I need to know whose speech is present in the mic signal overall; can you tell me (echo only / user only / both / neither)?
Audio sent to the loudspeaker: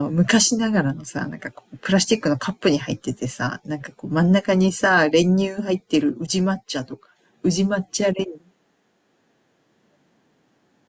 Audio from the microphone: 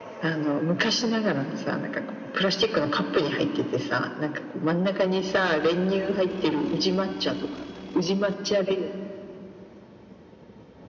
echo only